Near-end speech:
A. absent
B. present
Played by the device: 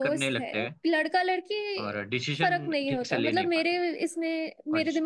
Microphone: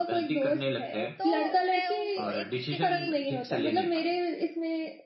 B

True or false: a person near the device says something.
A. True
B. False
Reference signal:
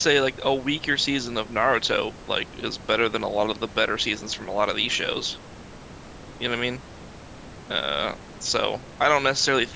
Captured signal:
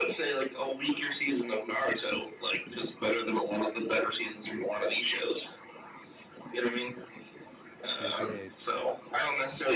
A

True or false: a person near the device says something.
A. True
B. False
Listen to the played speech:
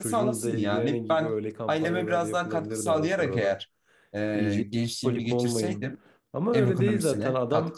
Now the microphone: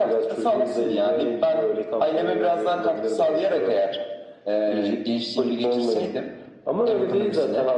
B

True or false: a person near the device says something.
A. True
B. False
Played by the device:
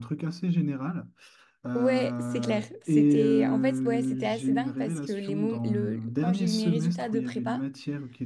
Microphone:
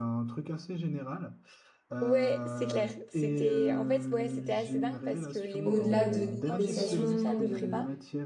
A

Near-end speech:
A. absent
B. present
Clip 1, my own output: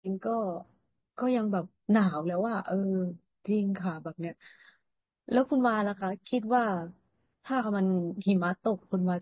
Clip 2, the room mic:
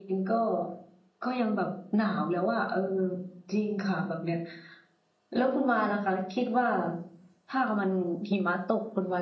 A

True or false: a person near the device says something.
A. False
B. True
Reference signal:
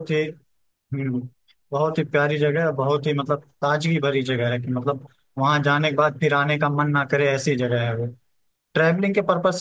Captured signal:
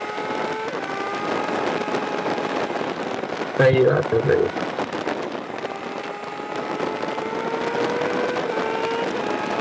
B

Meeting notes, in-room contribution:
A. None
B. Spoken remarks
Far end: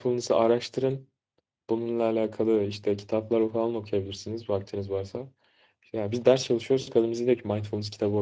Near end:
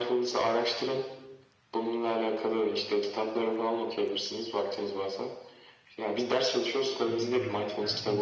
B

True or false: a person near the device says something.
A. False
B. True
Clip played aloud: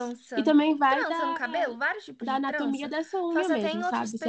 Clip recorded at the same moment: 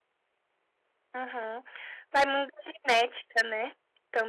B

